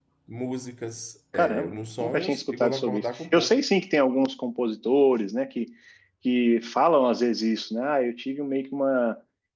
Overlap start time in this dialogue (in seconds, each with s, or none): 1.3 s